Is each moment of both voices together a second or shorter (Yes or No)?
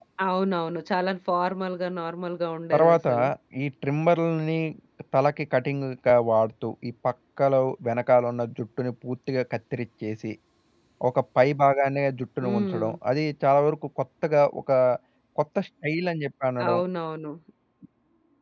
Yes